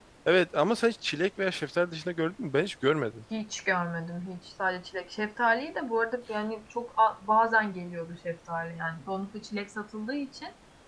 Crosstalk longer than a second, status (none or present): none